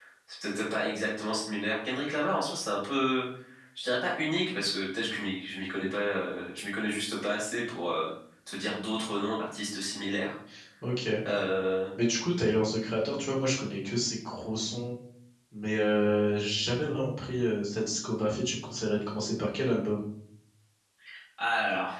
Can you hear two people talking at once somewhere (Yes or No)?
No